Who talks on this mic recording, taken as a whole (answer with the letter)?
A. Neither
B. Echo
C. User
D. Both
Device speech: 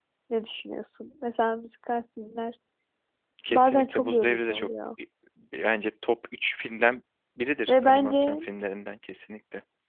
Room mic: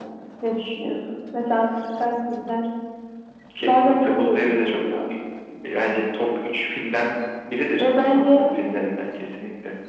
B